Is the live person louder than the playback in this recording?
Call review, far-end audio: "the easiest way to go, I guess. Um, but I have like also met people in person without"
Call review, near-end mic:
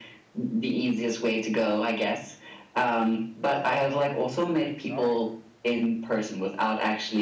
No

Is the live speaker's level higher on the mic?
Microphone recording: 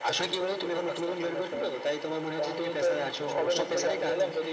No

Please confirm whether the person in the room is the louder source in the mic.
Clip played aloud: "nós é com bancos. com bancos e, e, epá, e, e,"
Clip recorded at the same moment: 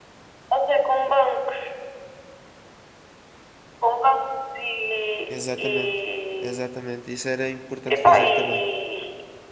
No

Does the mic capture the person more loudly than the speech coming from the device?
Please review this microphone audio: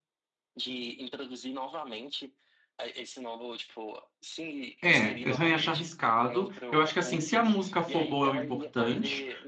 Yes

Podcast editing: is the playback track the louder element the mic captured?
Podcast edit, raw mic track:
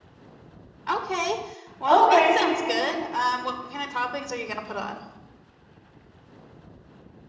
No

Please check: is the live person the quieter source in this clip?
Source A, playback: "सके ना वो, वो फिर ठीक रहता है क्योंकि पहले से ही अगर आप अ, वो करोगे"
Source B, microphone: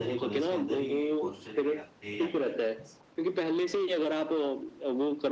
Yes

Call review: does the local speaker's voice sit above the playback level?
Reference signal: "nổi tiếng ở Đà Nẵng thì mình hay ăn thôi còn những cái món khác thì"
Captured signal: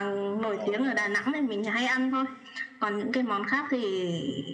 No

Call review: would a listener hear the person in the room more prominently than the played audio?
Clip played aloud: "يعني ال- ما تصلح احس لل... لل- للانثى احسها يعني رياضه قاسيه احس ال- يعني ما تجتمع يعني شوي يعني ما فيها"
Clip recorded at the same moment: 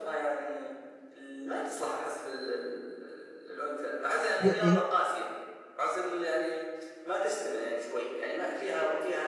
Yes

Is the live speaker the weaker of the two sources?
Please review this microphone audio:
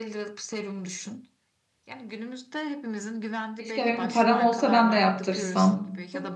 No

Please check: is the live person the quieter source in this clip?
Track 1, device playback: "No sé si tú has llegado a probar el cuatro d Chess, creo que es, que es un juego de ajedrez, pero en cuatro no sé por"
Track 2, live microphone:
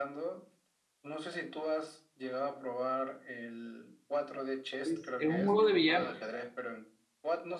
No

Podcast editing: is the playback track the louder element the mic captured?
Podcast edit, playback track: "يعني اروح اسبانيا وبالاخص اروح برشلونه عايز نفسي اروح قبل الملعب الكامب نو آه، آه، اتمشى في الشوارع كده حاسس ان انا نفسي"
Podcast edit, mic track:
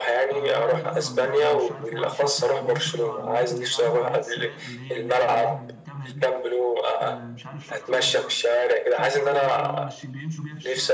Yes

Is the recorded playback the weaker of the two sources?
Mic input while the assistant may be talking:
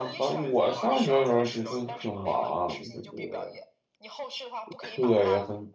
Yes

